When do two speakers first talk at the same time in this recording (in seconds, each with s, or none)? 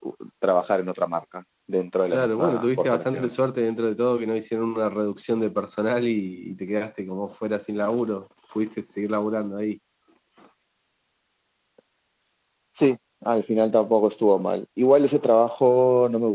2.1 s